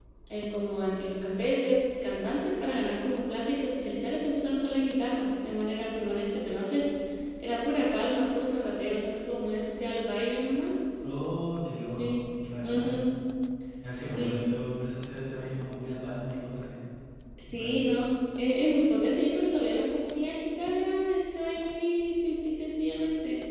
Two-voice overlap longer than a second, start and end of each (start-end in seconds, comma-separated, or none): none